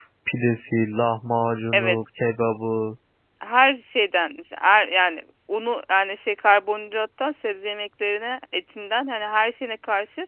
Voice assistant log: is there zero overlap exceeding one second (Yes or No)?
Yes